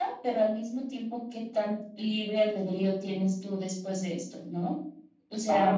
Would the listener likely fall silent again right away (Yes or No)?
No